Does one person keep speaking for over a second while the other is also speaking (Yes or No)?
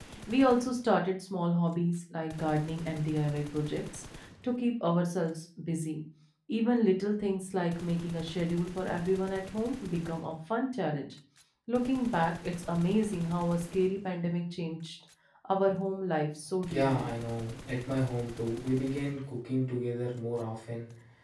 No